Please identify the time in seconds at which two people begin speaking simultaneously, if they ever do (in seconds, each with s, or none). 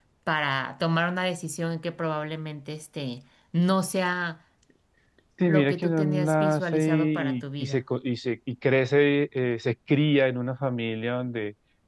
5.4 s